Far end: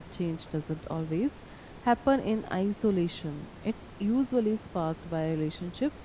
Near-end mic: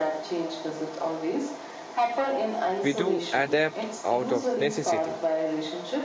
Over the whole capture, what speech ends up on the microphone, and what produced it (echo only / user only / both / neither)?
both